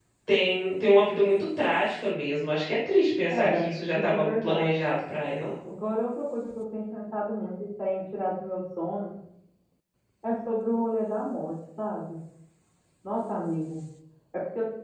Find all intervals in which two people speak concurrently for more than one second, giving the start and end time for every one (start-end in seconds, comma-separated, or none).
3.3-4.8